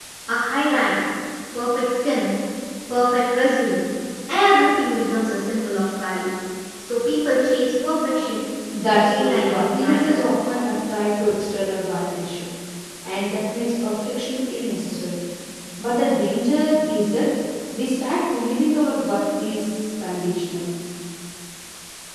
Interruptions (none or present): present